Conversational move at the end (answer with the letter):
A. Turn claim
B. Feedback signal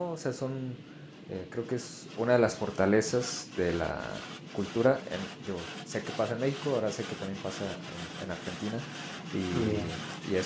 B